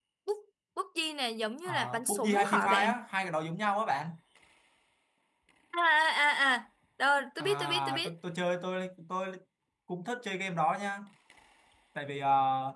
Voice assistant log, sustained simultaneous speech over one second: present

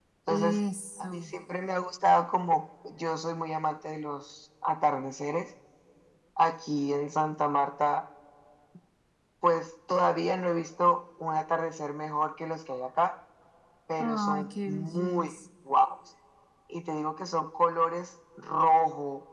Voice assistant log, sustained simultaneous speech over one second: present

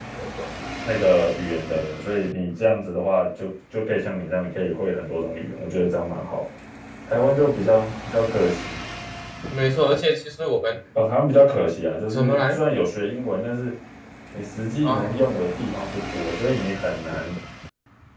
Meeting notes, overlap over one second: none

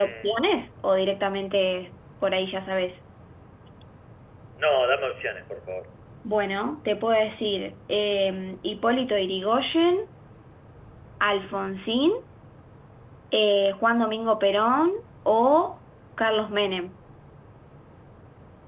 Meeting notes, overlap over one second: none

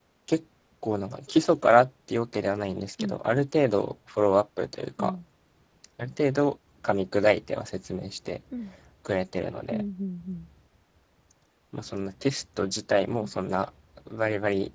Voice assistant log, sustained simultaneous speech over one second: none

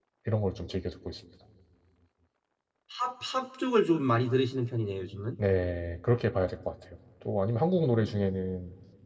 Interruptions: none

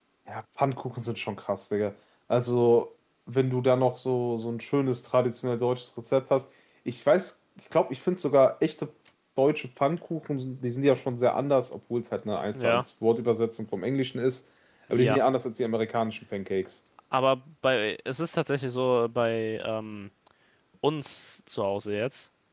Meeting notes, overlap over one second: none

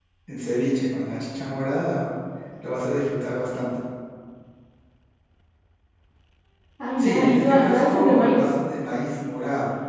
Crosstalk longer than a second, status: present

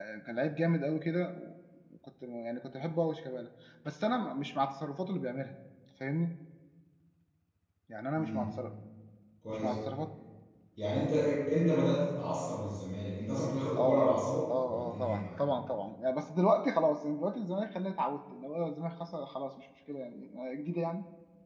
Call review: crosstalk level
present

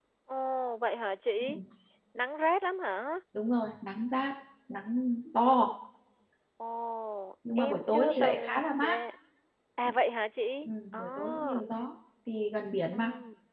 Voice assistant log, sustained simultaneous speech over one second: present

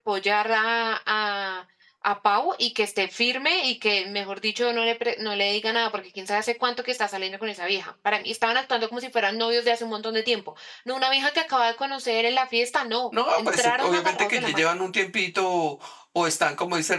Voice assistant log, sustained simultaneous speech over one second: present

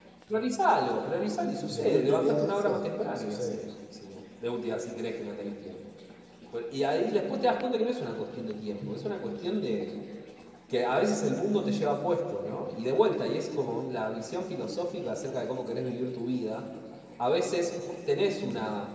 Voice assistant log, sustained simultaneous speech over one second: present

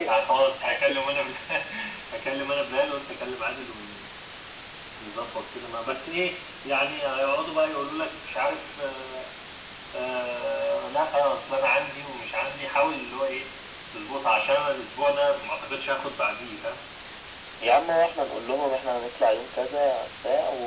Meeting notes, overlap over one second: none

